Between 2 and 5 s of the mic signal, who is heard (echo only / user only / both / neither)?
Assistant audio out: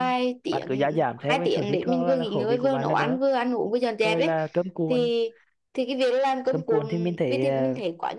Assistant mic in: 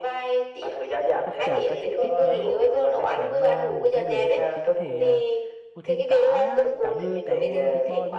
both